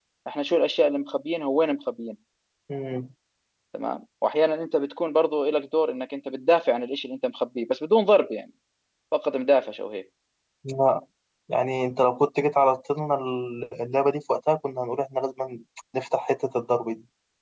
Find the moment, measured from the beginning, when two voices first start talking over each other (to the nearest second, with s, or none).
none